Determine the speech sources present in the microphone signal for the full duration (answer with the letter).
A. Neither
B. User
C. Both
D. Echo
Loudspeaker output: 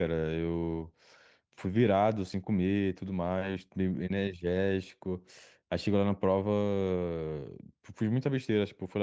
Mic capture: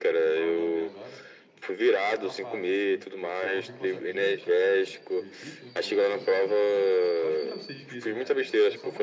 C